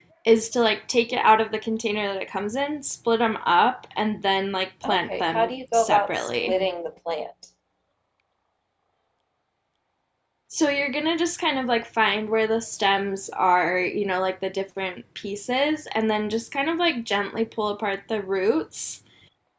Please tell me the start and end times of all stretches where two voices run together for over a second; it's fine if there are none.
4.8-6.6

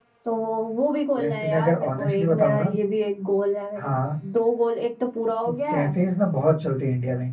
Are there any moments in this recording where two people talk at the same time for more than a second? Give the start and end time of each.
1.2-2.7

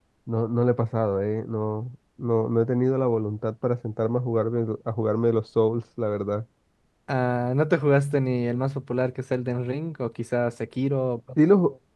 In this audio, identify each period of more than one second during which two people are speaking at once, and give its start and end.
none

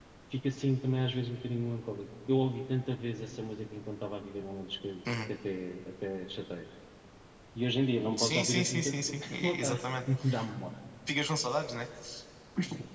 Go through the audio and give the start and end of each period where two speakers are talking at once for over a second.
8.2-9.8

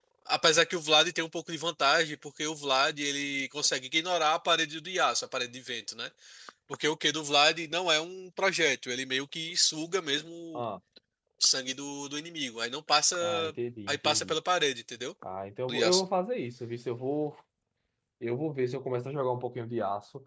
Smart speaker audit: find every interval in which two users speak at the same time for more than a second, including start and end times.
none

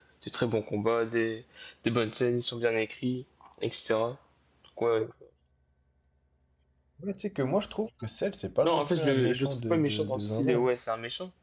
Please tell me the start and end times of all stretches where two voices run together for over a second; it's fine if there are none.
8.6-10.5

